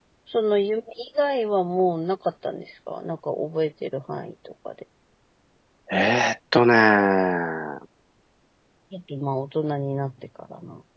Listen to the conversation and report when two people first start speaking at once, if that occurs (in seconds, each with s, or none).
none